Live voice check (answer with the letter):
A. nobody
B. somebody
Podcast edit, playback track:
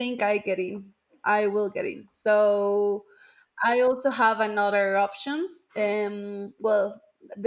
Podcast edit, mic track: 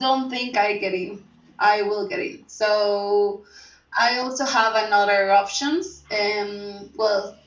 A